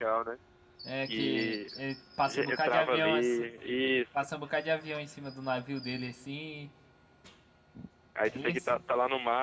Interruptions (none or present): present